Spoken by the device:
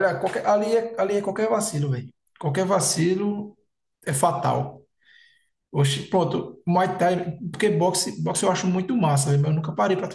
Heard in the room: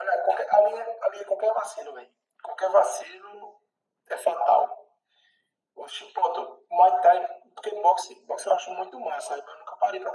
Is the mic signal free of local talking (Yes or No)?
Yes